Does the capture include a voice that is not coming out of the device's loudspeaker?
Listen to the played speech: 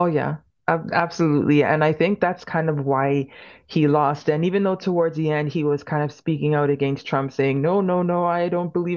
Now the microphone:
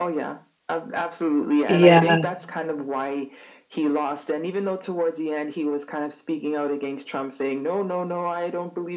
Yes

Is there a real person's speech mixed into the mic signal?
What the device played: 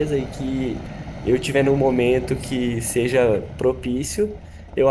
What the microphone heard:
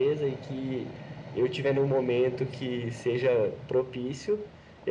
No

